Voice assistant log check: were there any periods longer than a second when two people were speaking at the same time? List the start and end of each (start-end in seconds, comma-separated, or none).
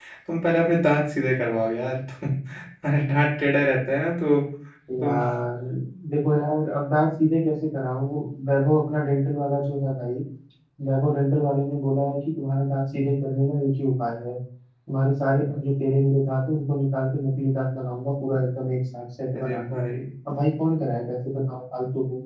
none